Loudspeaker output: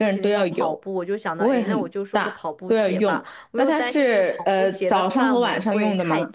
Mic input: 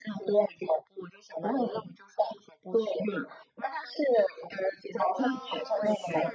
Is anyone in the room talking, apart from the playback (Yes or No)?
Yes